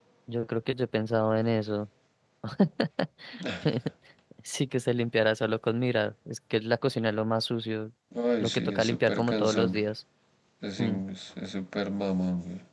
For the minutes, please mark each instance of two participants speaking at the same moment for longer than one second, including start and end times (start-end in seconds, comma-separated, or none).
8.4-9.8